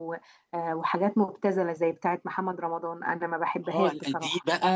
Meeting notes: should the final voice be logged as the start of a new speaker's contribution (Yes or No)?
Yes